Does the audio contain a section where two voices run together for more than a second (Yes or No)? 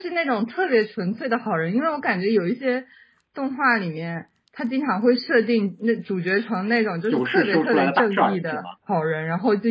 Yes